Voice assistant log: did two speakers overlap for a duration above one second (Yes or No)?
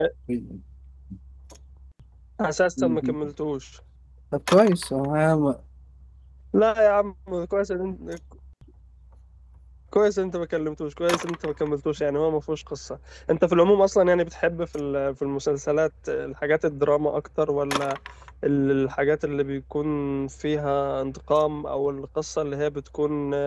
No